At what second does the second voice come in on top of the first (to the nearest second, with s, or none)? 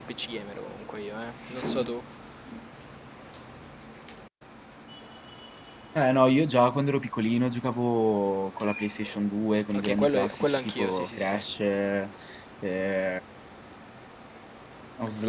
10 s